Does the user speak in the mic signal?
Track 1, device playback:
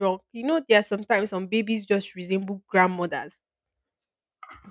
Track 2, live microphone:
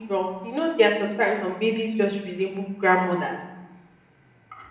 No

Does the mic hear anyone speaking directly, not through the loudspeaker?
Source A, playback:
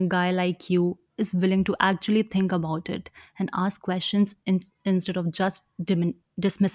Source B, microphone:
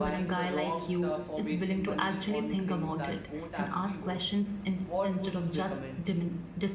Yes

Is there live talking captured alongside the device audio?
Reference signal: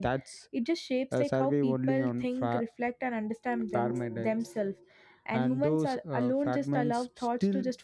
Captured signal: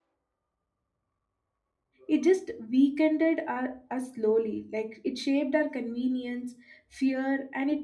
Yes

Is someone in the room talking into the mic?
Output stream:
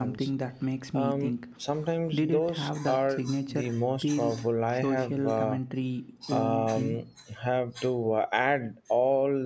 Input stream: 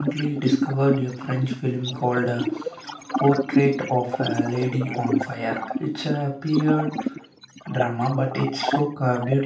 Yes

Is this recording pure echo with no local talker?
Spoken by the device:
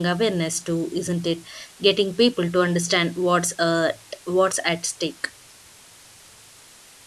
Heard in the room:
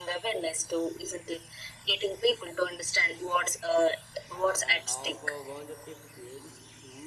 No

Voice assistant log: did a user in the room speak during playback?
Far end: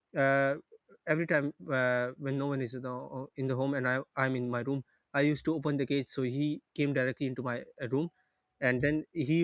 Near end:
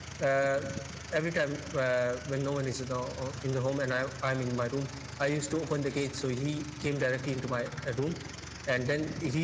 No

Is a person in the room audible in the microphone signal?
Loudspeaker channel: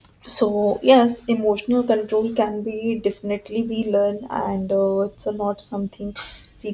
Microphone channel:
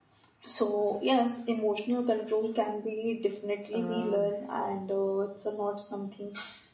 Yes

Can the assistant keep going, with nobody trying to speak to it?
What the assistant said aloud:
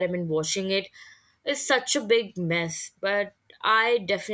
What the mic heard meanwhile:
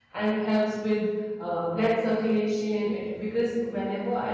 No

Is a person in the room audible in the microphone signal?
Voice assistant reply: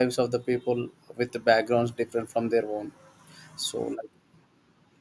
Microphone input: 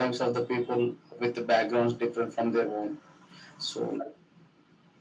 No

